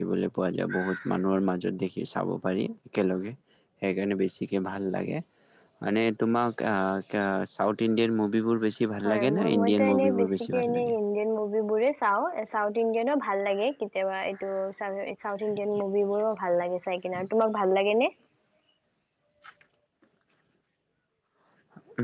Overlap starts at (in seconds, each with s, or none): 9.0 s